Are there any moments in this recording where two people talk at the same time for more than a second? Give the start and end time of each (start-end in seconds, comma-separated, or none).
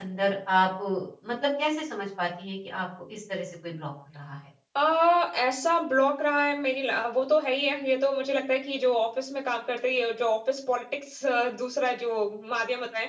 none